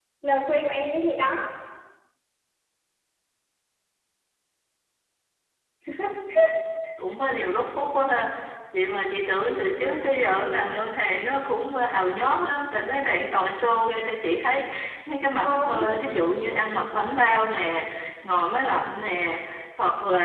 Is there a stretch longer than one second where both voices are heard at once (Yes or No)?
No